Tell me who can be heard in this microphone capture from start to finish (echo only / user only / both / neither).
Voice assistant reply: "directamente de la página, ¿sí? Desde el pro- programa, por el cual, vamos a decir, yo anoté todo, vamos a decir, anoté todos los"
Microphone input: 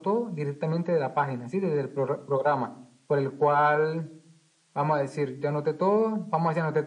echo only